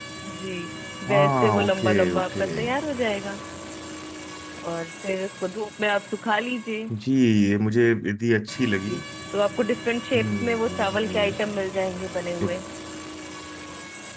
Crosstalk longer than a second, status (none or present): present